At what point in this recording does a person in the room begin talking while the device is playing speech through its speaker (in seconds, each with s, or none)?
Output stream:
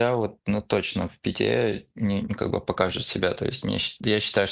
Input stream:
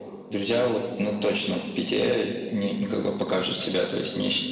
none